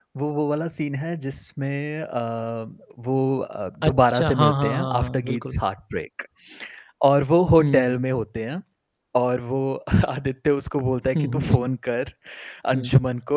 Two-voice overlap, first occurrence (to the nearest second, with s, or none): 4 s